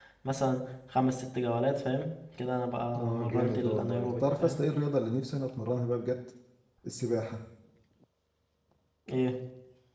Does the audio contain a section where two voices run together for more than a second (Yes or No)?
Yes